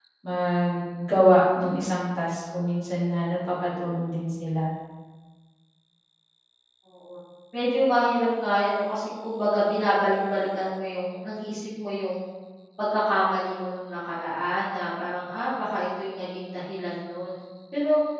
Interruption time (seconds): none

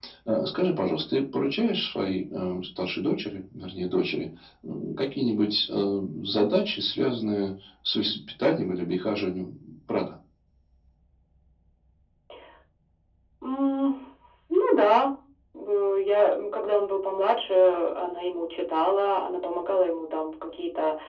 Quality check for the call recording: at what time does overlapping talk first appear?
none

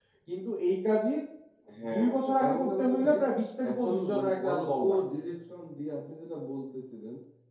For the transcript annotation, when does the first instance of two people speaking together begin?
1.9 s

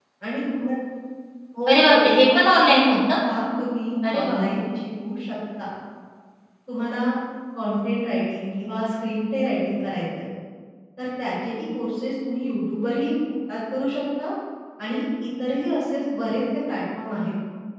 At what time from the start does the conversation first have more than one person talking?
1.7 s

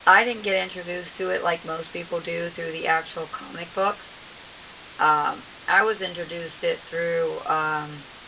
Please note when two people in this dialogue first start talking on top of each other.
none

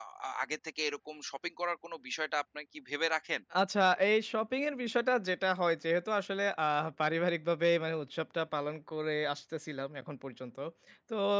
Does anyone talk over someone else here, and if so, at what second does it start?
none

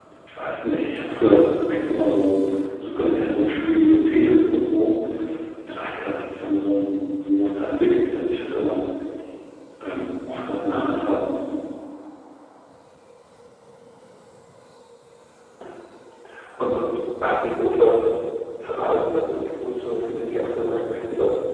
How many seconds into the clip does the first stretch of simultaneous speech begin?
none

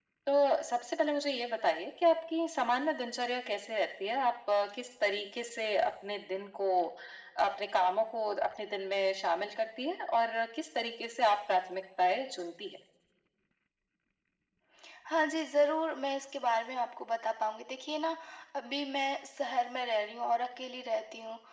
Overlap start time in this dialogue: none

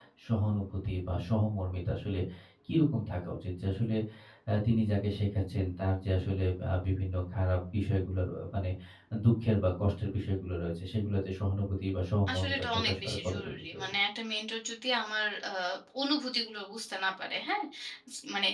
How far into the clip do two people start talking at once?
12.3 s

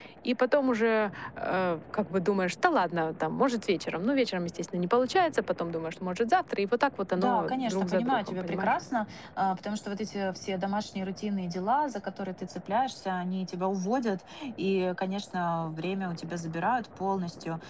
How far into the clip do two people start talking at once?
7.2 s

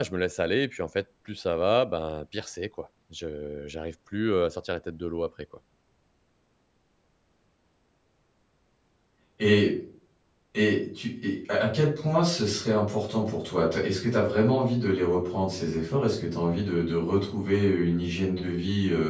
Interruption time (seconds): none

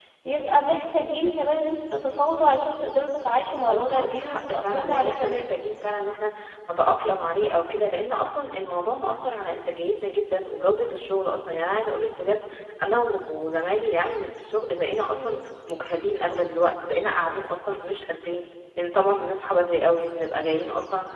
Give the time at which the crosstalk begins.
3.5 s

